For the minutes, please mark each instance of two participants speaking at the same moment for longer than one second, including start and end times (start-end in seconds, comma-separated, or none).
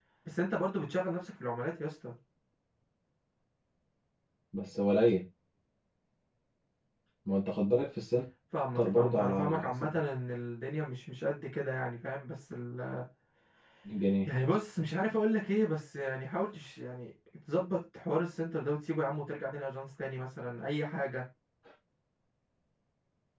8.8-10.0